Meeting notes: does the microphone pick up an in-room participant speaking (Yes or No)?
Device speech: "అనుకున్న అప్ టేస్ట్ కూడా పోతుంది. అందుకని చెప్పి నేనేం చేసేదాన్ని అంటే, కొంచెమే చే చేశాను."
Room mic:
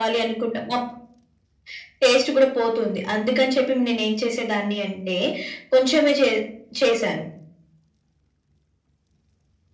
No